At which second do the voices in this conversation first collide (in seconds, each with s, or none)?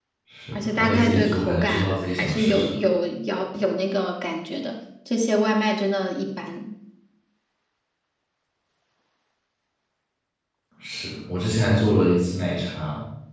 0.5 s